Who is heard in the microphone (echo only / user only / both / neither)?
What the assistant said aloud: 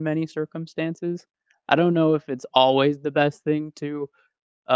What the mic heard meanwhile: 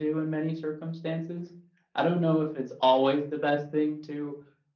echo only